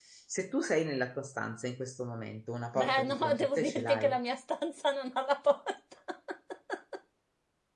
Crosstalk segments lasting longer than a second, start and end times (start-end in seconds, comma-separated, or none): 2.7-4.2